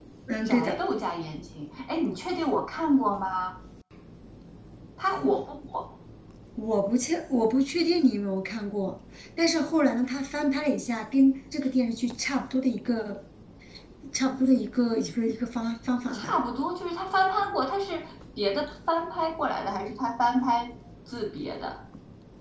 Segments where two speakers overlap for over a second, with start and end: none

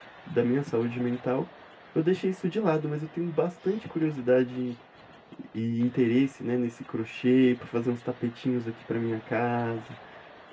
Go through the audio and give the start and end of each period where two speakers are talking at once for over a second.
none

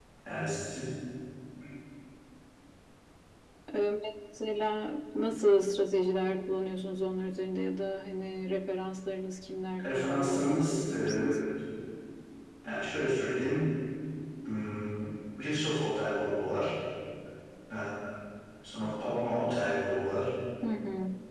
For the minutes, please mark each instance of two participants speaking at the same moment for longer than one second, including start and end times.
9.8-11.3

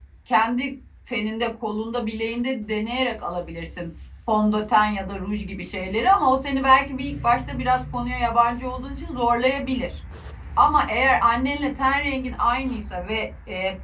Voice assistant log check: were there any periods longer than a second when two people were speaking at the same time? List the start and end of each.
none

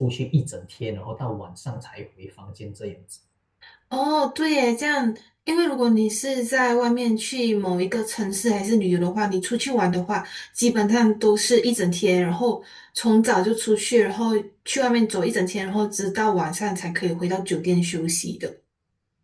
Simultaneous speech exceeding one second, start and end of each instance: none

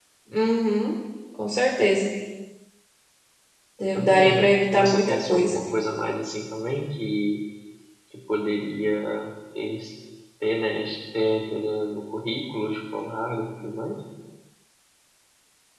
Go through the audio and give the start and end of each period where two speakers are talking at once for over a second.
4.0-5.6

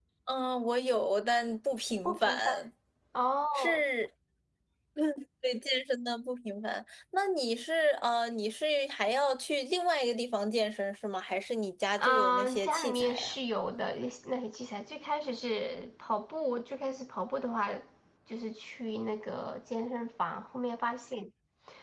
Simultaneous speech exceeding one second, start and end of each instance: 12.0-13.3

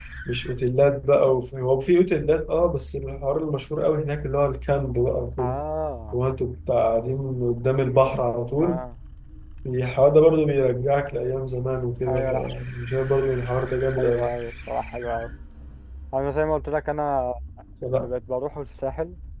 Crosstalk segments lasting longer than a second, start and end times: none

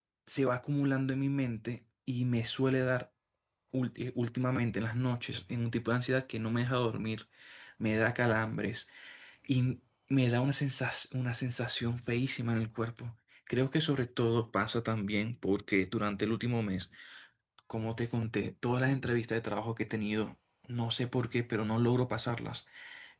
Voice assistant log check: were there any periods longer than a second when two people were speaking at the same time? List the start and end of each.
none

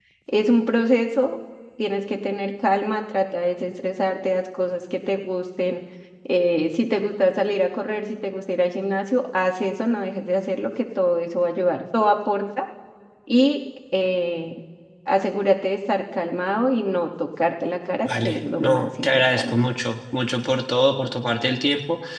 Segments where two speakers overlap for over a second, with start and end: 18.1-19.5

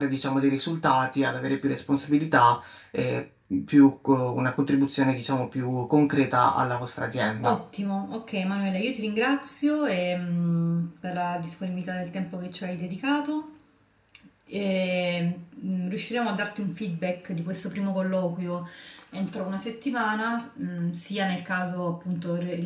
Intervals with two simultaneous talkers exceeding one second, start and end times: none

